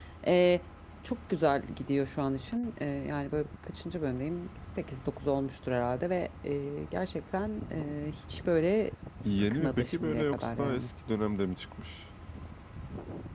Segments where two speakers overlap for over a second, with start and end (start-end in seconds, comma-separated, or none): 9.4-10.9